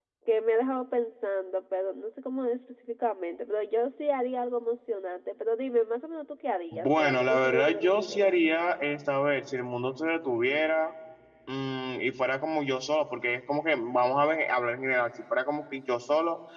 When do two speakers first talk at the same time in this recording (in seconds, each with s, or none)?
6.7 s